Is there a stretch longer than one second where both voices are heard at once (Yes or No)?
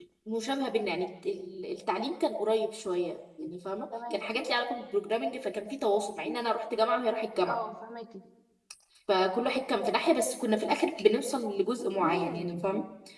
No